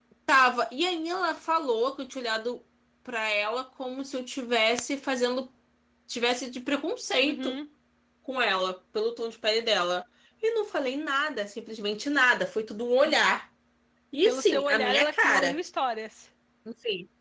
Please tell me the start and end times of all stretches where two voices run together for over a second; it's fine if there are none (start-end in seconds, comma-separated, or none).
14.2-15.6